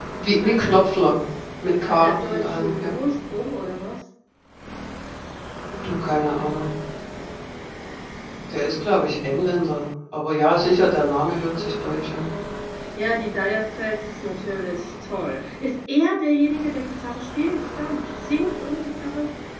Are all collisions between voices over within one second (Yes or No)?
No